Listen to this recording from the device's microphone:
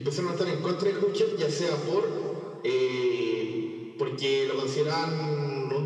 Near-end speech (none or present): none